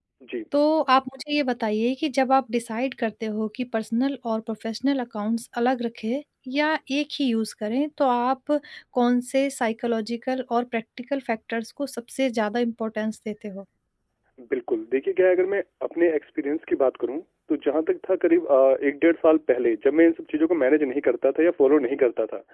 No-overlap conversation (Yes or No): Yes